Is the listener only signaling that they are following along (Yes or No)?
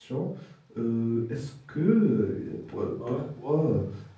Yes